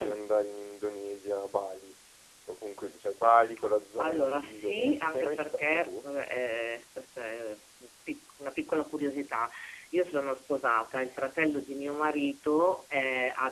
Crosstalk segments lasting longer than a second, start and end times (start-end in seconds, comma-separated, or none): 4.0-5.9